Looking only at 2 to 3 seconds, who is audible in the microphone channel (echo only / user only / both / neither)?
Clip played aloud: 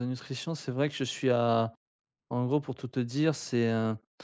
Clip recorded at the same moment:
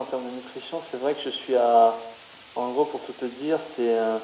echo only